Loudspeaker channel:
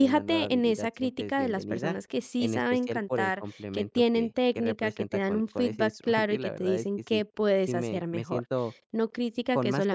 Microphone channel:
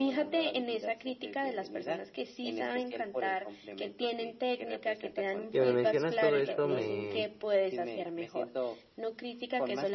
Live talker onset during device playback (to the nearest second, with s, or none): 6 s